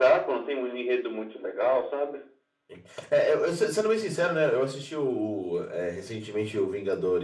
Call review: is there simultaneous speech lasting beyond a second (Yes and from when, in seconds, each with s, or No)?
No